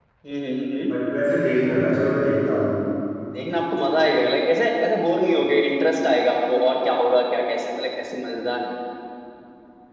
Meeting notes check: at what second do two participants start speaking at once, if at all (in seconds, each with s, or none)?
none